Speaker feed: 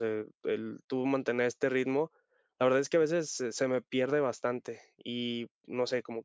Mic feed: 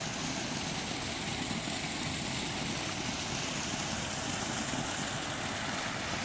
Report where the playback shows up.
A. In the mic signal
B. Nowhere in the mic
B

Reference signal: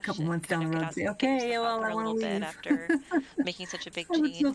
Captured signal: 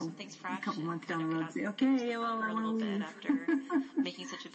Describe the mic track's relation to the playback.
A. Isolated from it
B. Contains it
B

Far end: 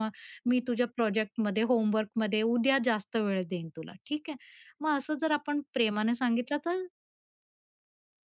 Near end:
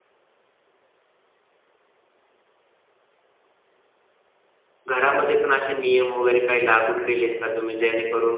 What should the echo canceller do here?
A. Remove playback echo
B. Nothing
B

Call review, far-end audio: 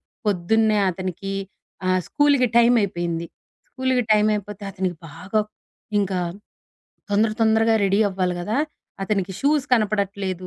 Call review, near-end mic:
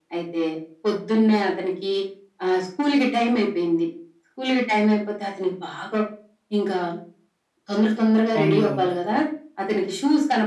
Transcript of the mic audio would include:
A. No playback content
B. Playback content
B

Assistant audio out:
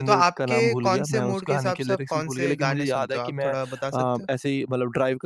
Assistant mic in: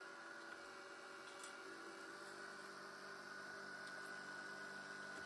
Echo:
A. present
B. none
B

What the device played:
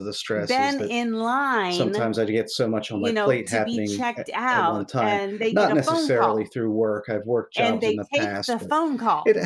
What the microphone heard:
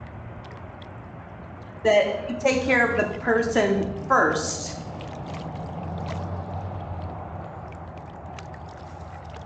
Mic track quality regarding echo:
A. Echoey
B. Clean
B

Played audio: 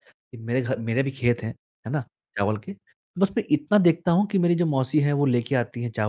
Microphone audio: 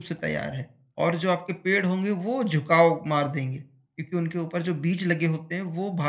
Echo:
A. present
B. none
B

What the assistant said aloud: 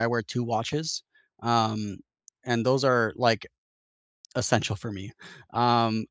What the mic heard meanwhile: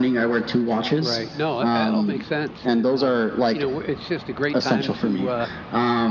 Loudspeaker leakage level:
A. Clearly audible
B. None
A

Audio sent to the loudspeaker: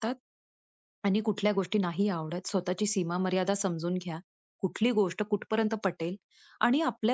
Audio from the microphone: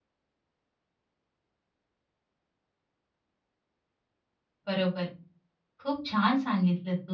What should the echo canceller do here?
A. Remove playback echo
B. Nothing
B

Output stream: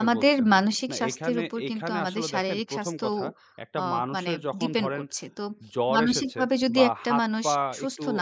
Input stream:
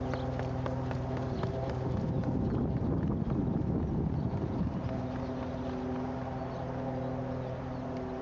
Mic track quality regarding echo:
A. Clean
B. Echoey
A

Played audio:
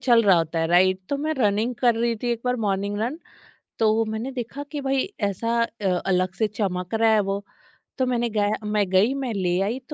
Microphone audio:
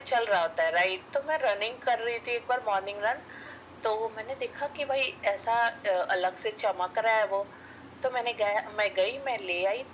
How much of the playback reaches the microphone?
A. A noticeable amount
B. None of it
A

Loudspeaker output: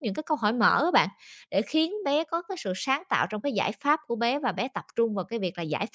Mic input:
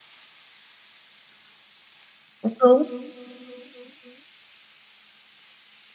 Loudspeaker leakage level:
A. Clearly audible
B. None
B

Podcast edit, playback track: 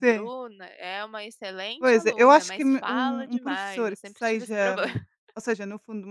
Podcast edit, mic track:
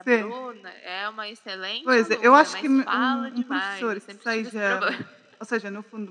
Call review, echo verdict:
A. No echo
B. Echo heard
B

